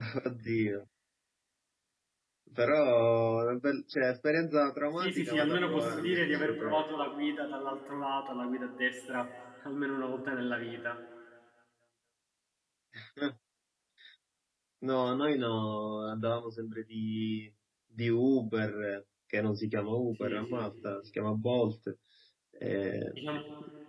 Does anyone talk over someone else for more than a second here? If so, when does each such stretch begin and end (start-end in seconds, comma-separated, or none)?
5.0-6.8